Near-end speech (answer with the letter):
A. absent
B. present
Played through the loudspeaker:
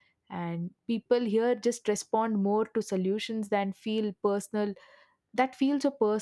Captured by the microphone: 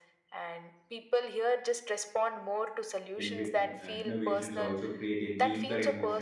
B